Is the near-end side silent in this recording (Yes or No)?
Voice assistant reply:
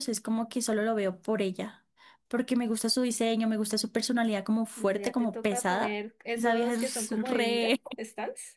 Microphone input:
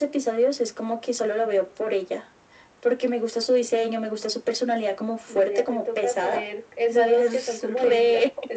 Yes